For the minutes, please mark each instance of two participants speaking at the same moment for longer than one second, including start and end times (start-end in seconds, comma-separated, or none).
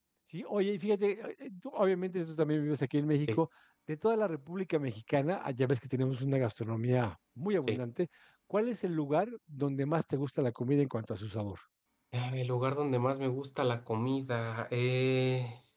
none